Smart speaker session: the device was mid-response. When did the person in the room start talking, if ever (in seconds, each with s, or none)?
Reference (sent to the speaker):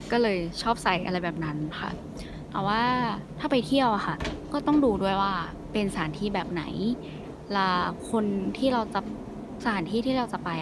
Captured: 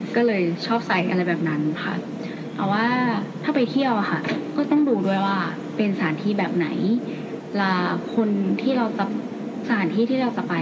none